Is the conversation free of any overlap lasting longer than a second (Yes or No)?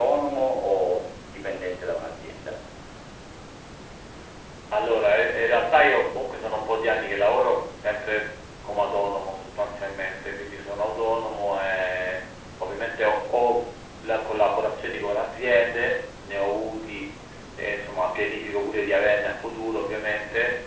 Yes